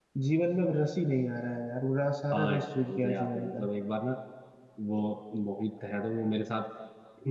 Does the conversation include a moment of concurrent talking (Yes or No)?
Yes